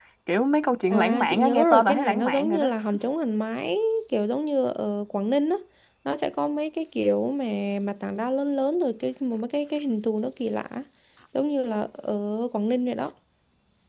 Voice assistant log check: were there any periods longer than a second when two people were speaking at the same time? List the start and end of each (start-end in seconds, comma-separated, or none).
0.9-2.7